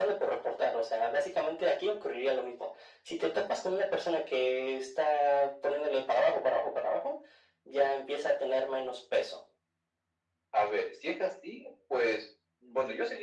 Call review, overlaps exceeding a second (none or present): none